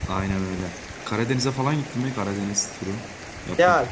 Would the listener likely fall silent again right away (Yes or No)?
No